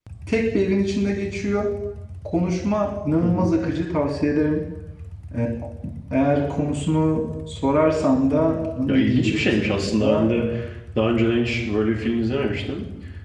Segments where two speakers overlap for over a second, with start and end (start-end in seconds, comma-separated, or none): 8.9-10.3